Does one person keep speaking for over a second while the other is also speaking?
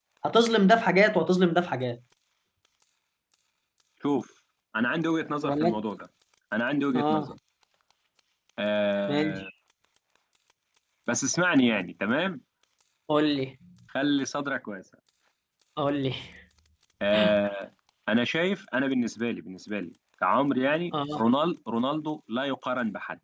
No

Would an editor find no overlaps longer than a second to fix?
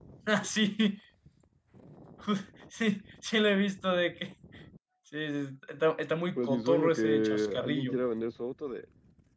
No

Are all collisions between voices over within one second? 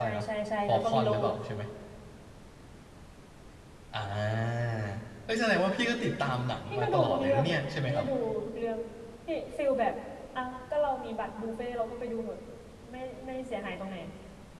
No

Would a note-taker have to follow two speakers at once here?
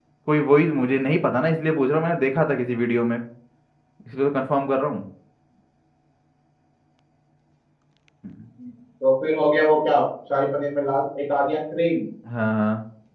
No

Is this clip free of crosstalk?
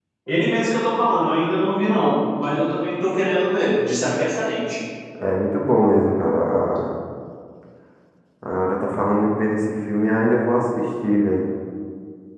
Yes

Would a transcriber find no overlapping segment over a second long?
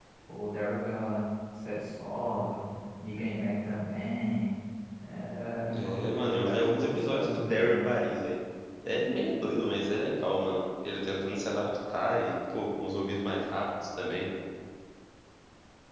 No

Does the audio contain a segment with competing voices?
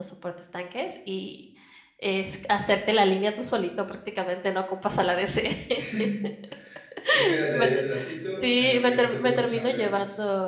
Yes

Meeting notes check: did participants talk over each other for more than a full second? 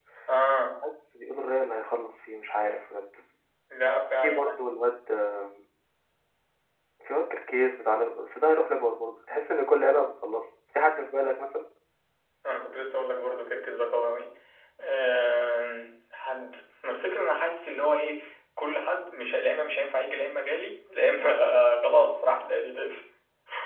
No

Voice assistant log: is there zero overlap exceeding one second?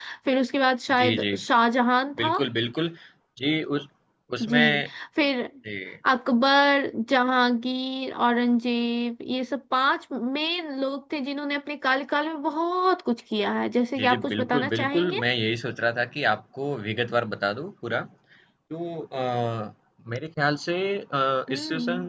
No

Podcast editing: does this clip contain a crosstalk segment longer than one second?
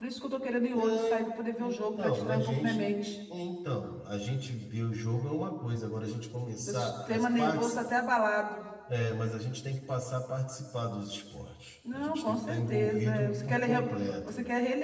Yes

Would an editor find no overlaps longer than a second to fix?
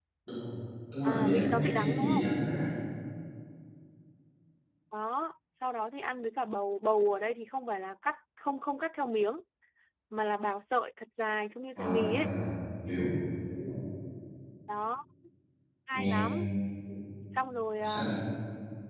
No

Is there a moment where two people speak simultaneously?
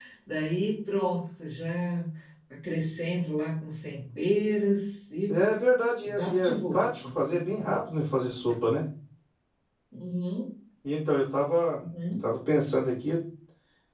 Yes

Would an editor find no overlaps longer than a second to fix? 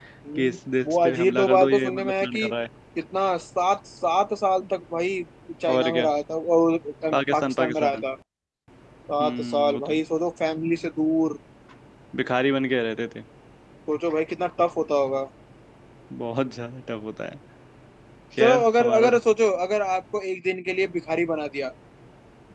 No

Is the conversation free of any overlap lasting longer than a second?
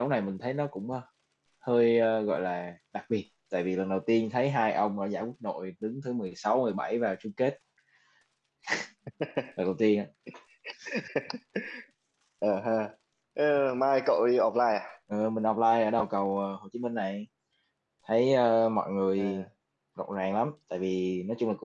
Yes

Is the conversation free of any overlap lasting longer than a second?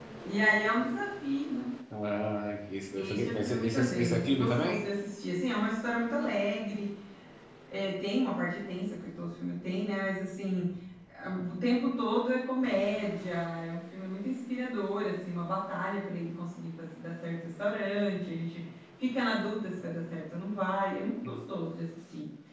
No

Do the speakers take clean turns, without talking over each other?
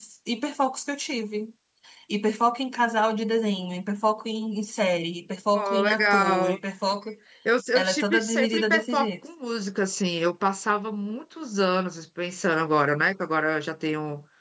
No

